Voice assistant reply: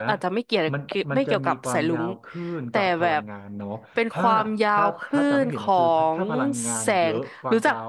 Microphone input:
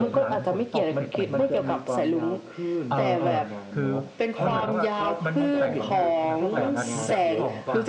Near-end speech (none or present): present